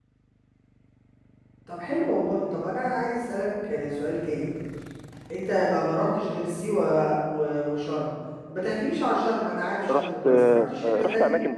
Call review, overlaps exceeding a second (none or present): present